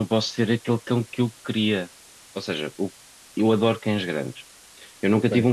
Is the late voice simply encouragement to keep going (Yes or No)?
Yes